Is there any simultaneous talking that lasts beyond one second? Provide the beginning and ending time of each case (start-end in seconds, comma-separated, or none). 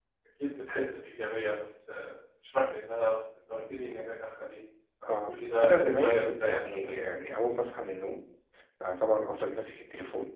5.1-6.9